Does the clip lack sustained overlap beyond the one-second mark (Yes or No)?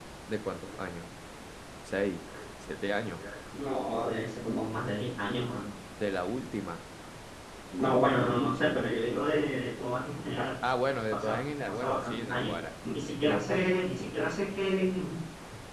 No